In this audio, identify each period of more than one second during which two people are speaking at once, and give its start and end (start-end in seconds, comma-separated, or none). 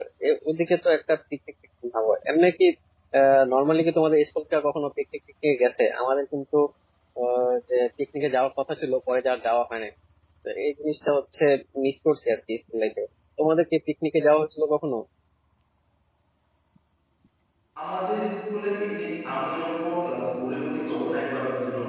none